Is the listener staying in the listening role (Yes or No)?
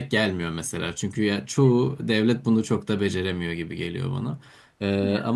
Yes